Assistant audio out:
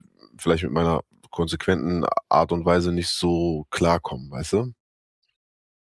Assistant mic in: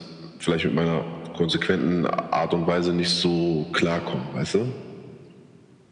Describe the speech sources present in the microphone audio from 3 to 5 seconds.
echo only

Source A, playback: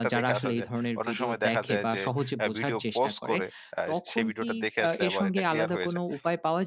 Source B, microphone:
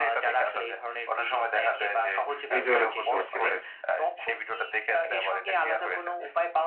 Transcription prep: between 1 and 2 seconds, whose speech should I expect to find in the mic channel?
echo only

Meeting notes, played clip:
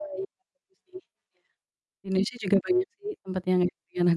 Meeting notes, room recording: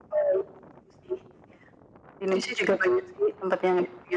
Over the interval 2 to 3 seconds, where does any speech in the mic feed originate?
echo only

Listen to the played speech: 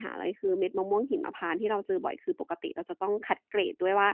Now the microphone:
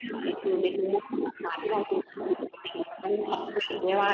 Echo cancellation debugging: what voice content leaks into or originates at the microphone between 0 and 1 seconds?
echo only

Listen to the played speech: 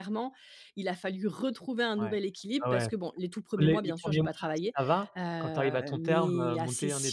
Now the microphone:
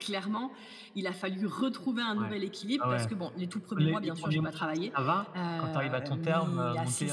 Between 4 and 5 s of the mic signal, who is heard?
echo only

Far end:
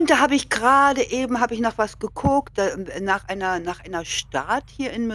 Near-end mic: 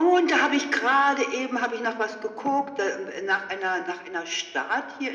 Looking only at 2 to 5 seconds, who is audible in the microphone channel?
echo only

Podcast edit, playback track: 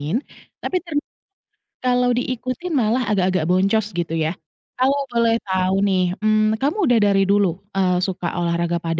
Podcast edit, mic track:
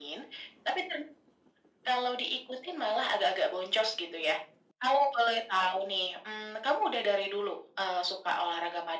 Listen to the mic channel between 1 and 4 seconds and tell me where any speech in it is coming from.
echo only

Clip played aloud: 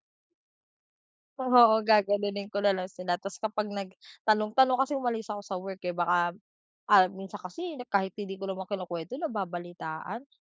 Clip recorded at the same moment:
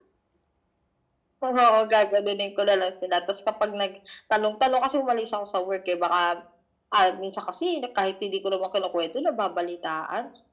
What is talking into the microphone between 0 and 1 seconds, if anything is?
neither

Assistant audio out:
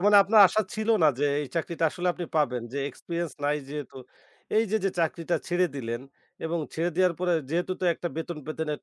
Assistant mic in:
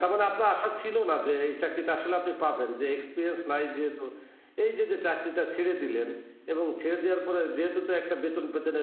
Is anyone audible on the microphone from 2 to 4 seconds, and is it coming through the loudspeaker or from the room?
echo only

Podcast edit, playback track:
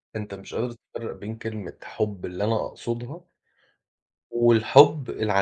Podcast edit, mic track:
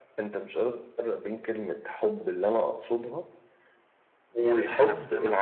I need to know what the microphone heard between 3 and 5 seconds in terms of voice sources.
both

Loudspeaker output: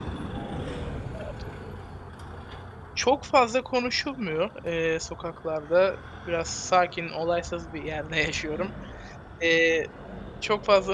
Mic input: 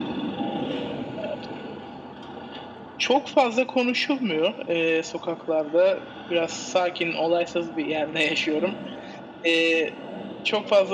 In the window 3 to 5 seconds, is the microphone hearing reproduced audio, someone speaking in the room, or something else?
echo only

